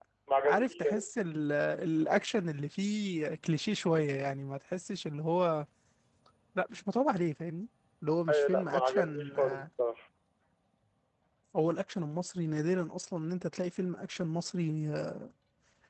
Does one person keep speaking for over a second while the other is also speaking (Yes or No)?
Yes